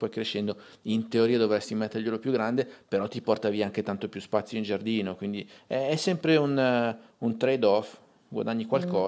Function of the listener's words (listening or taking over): taking over